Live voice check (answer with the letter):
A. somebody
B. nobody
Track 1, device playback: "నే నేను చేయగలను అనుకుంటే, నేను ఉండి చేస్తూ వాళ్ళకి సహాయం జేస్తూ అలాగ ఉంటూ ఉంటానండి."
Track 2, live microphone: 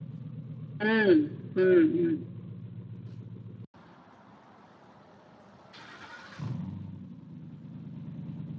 A